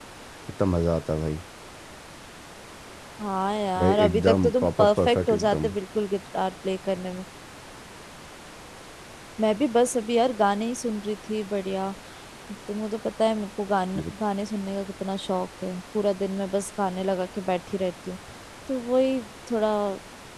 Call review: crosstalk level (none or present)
present